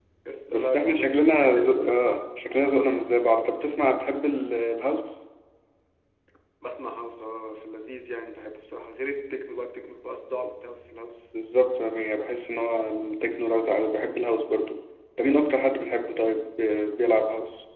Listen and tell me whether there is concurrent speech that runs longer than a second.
Yes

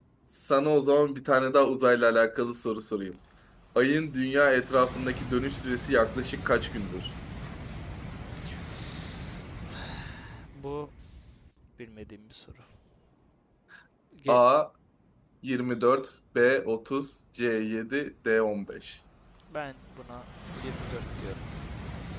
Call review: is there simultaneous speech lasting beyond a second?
No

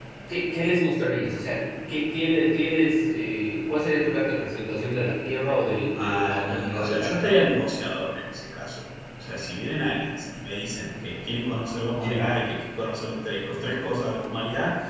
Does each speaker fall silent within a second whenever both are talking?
No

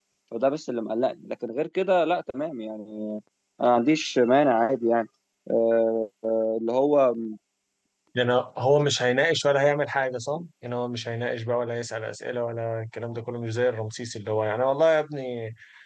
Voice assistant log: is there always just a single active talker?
Yes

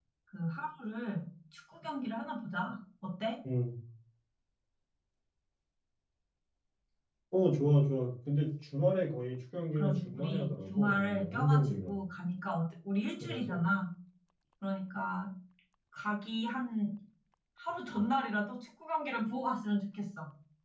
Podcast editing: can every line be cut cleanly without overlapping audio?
No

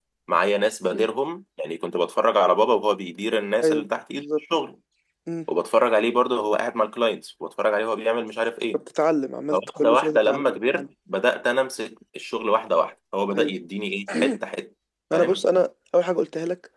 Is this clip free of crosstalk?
No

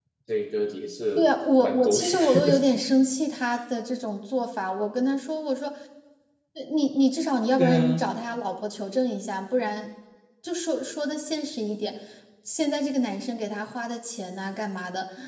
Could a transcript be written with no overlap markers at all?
No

